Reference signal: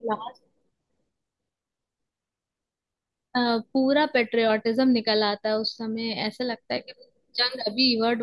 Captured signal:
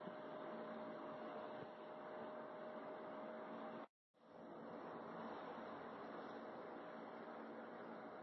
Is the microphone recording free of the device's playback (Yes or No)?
Yes